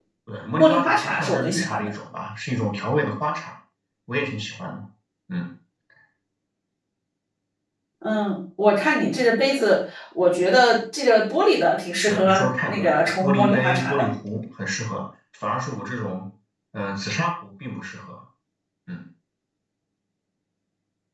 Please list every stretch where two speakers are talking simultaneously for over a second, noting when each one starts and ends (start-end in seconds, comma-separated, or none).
0.6-1.9, 12.1-14.0